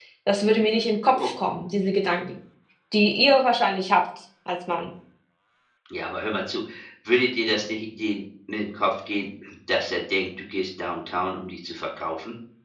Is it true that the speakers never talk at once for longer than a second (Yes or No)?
Yes